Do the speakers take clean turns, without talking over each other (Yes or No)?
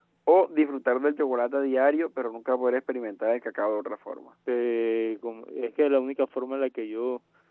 Yes